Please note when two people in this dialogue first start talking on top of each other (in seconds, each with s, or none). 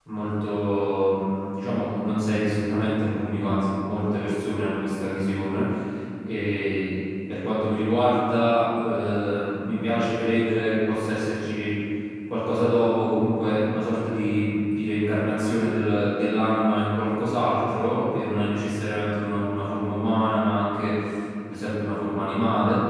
none